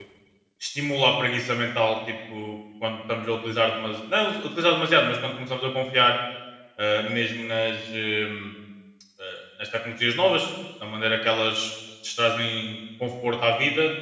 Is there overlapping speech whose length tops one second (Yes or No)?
No